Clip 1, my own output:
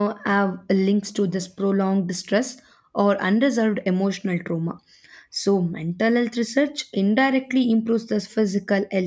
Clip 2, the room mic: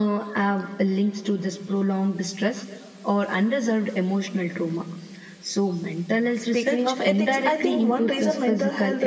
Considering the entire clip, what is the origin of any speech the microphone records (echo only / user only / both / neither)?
both